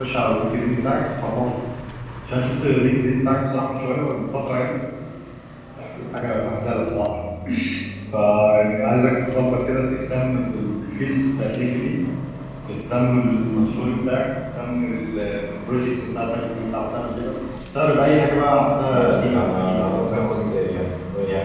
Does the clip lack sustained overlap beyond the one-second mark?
No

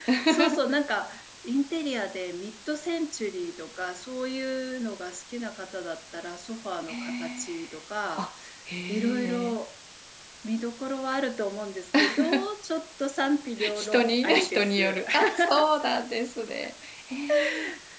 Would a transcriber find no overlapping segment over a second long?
No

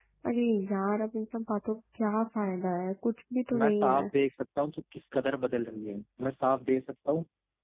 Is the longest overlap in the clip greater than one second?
No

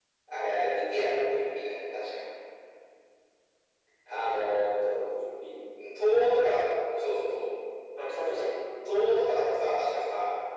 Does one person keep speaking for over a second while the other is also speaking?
No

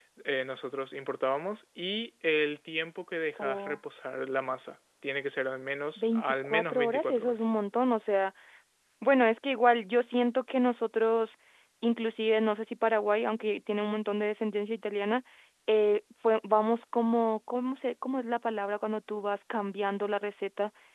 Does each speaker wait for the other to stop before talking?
No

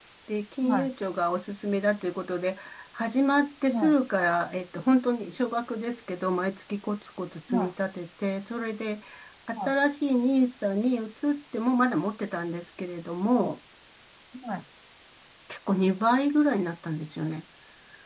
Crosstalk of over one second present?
No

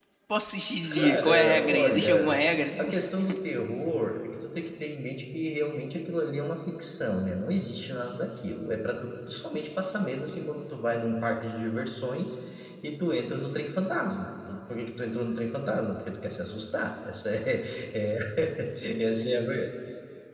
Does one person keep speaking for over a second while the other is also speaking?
Yes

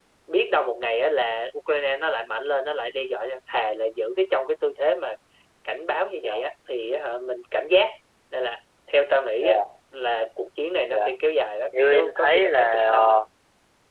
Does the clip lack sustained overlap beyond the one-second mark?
No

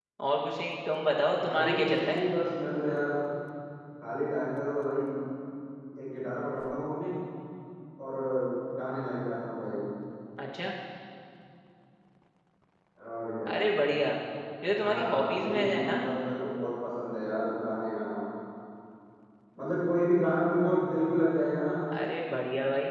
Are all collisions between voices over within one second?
No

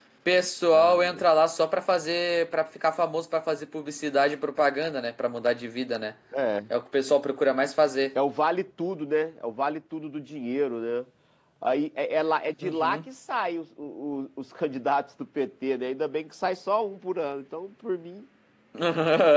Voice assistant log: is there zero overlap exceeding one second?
Yes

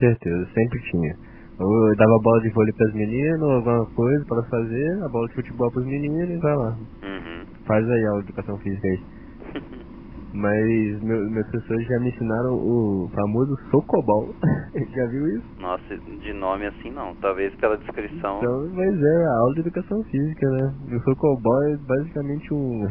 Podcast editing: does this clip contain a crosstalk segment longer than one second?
No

